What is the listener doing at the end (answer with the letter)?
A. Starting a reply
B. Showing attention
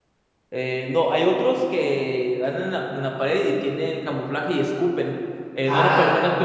B